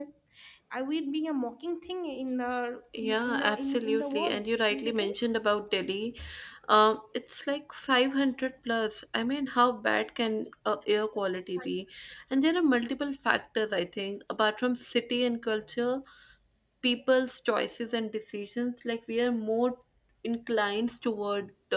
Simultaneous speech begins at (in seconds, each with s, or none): 2.9 s